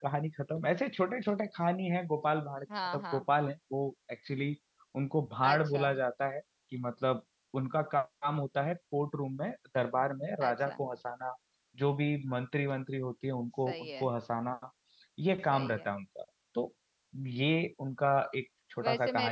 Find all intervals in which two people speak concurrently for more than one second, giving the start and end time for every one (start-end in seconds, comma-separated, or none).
none